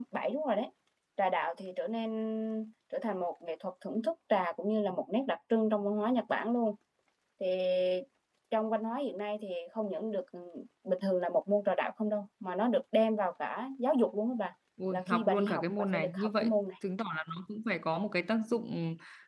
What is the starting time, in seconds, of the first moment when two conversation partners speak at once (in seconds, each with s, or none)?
14.8 s